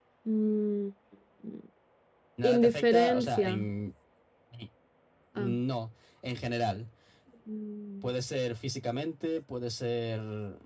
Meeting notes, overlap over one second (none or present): present